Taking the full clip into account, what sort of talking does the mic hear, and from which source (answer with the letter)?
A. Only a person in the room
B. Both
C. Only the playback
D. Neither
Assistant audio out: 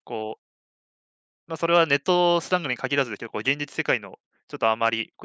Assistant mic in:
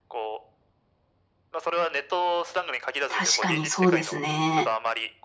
B